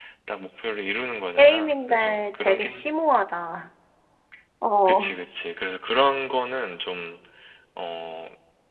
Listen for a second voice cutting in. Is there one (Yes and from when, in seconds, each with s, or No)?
Yes, from 1.4 s